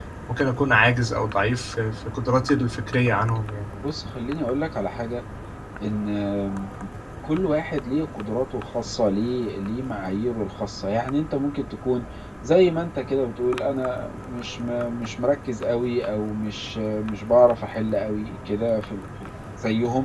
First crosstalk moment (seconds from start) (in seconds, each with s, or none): none